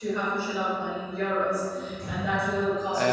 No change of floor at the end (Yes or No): No